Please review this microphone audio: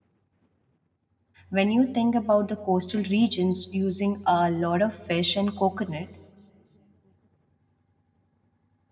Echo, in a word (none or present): none